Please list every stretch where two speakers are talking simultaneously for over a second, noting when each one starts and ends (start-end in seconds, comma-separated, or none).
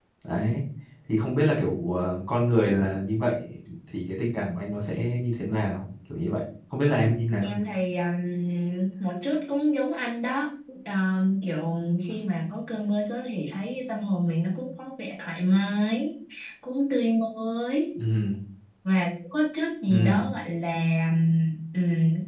none